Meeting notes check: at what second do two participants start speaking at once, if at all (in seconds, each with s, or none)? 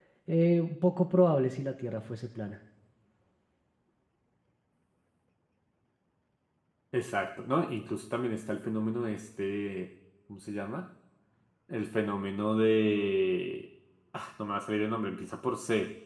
none